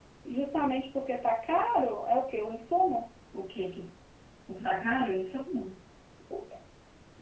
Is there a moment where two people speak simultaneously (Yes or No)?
No